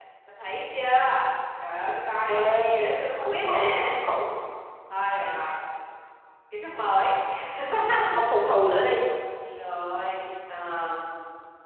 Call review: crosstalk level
present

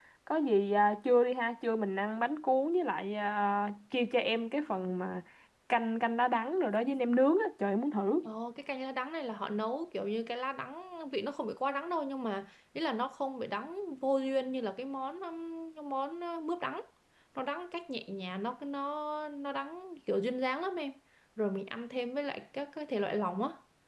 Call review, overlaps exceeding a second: none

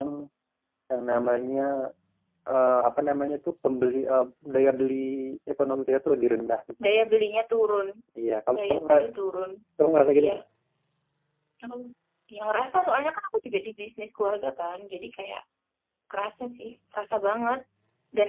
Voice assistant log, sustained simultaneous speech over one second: none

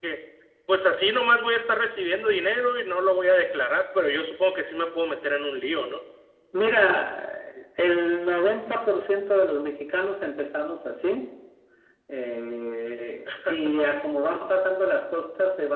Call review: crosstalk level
none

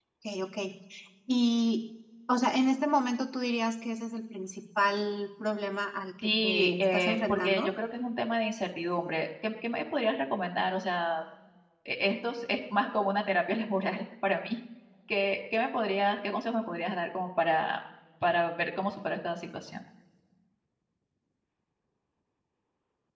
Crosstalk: present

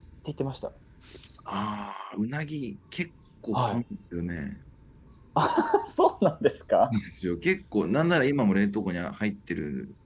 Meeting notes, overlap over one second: none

